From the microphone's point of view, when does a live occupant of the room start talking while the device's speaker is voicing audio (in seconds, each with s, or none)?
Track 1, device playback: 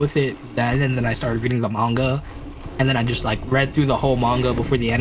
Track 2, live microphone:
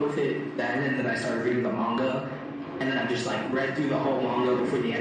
none